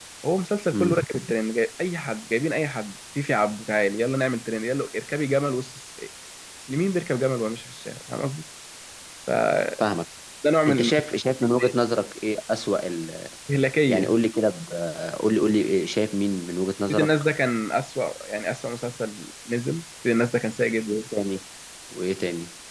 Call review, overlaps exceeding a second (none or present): none